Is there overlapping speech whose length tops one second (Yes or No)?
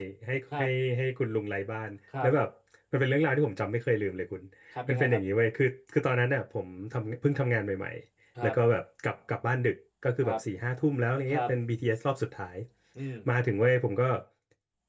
No